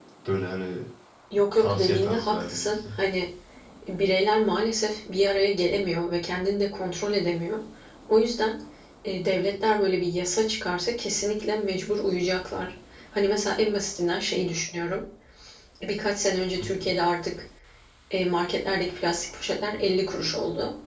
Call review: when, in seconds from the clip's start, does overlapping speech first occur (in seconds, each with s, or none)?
1.6 s